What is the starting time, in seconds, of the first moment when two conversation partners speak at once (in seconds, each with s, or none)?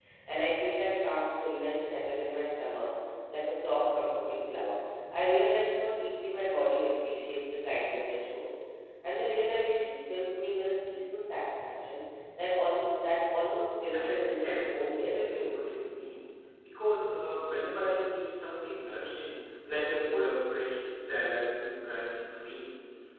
13.9 s